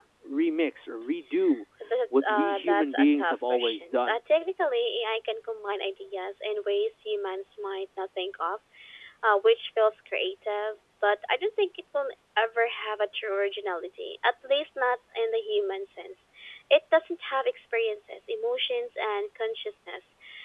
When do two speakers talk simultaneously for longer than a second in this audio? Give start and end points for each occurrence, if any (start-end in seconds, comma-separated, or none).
2.2-4.2